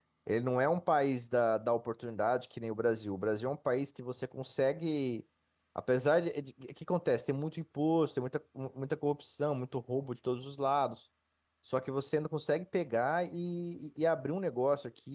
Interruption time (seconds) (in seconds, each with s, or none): none